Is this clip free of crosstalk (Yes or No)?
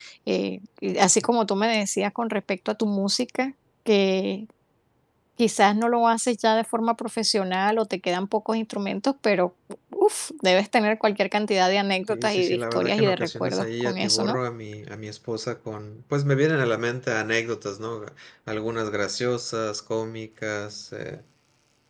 No